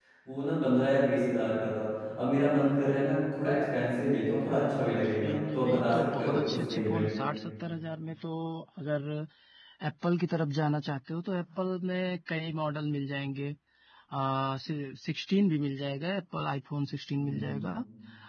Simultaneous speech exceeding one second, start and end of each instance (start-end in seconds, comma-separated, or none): 4.5-7.0